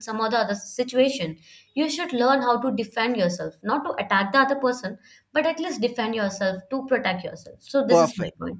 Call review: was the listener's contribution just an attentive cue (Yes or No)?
No